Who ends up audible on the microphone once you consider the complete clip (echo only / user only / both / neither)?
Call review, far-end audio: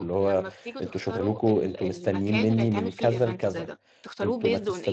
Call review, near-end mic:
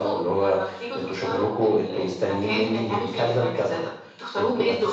echo only